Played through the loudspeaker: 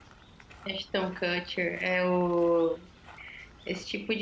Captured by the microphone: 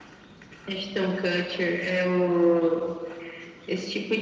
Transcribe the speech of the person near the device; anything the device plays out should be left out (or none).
none